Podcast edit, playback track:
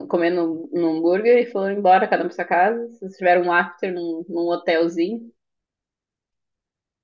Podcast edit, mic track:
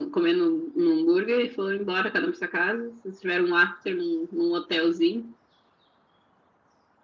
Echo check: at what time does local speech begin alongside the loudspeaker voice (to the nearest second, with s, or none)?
none